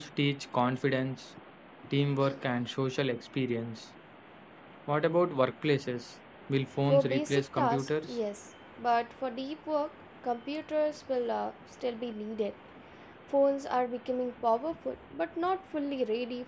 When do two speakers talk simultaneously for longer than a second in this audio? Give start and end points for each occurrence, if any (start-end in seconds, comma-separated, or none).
6.9-8.2